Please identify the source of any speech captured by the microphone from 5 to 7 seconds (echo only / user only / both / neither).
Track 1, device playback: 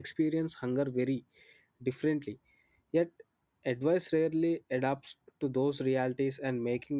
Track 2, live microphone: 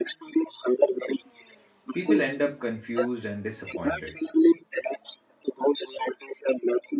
echo only